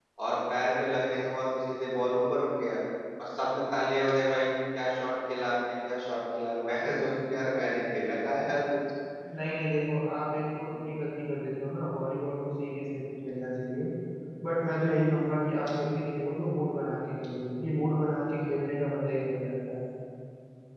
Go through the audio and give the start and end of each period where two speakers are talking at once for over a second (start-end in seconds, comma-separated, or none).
none